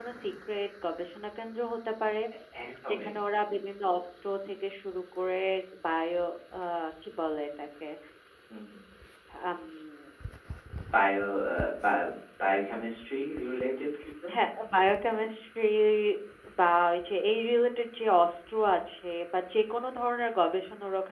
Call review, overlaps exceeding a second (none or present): none